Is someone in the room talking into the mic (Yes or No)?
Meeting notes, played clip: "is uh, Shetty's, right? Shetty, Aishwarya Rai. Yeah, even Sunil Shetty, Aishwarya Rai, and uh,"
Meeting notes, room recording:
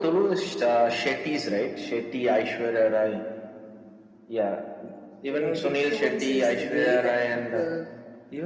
Yes